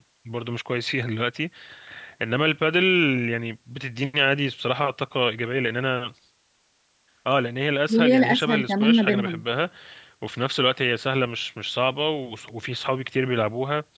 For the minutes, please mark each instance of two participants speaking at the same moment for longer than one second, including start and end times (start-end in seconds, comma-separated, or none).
7.9-9.4